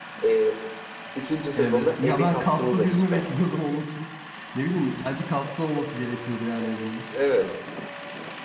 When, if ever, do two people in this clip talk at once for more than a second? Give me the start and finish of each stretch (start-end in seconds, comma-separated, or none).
1.5-3.6